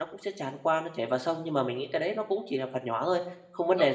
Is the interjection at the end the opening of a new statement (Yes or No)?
Yes